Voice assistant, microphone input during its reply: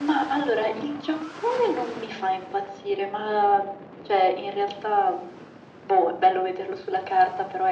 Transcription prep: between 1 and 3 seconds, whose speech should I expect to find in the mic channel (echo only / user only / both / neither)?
echo only